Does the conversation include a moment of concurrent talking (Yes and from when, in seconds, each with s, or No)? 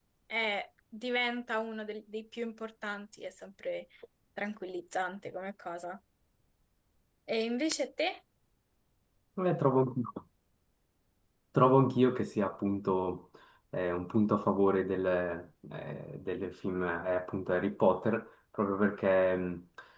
No